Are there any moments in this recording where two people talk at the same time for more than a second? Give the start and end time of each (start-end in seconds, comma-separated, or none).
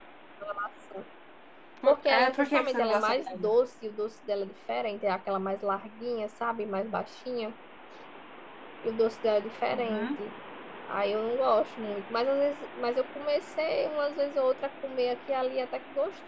1.9-3.5